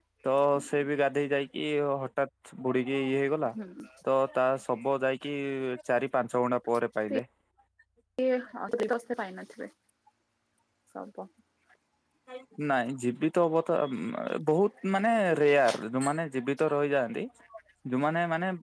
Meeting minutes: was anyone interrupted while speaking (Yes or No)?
No